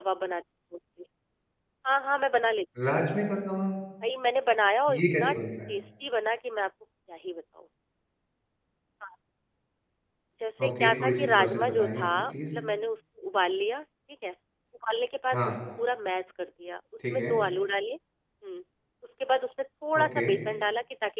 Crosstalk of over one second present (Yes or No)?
Yes